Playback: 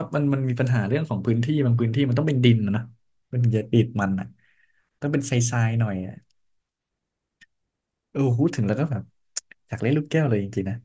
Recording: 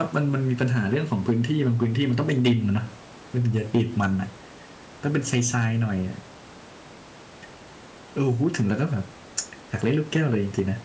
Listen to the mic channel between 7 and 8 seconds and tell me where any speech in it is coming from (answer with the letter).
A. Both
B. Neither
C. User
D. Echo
B